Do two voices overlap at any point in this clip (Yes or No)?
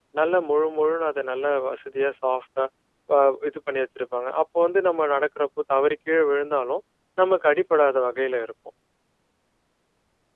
No